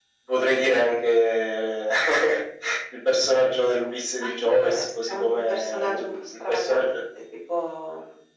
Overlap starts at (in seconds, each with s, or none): 4.2 s